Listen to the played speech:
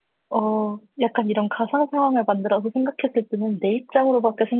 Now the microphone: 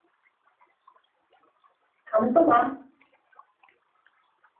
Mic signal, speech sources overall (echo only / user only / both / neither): user only